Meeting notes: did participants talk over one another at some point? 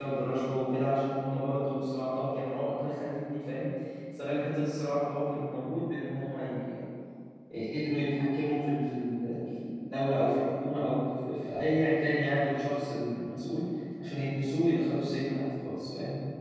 No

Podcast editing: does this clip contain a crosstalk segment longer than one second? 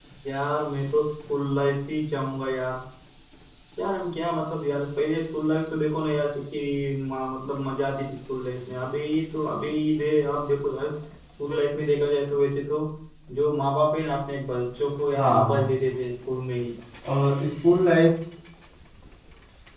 No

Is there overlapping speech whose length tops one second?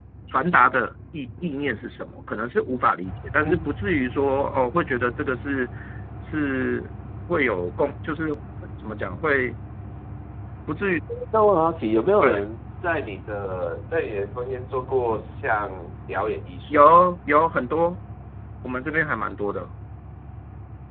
No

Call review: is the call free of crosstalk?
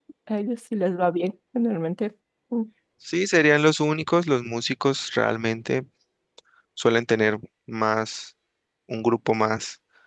Yes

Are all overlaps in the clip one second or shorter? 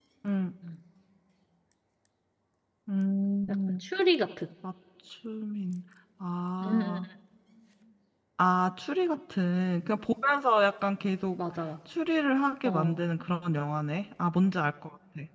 Yes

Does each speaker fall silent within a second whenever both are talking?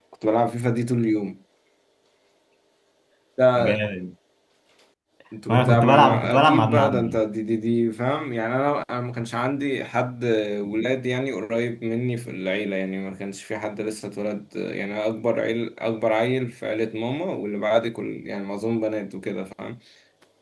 No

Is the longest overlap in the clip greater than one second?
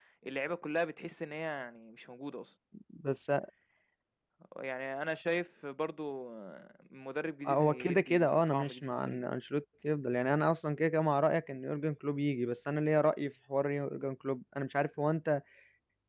Yes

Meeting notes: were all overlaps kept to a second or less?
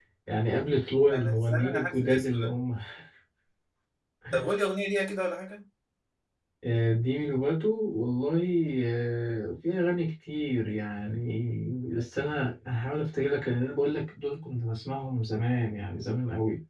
No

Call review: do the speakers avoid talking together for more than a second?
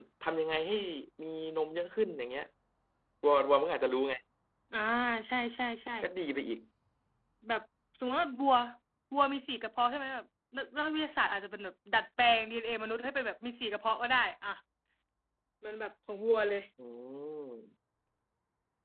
Yes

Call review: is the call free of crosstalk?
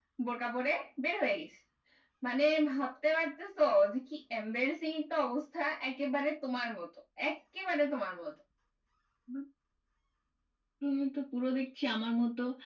Yes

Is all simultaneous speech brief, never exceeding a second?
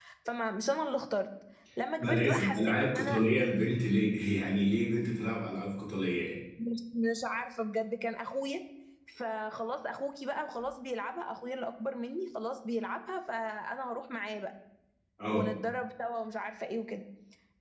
No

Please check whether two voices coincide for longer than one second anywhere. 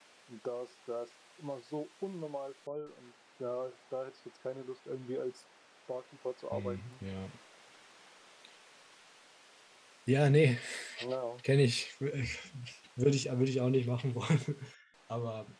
No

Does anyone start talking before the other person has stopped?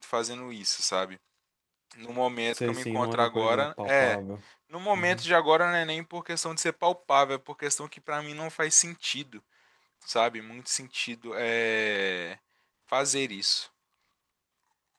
Yes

